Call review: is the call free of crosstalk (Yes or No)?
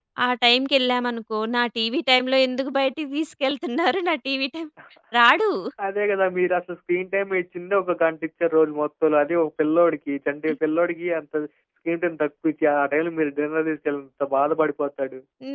Yes